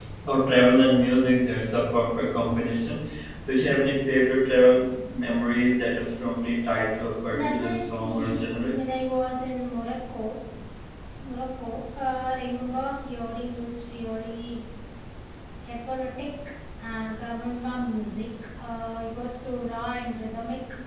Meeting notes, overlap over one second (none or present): present